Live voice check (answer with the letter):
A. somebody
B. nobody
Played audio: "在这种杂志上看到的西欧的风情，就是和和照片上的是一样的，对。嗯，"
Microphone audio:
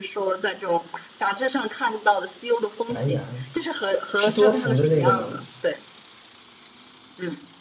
A